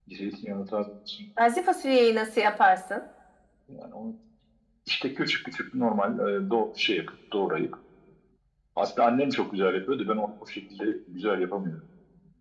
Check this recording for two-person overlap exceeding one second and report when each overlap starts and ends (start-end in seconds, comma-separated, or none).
none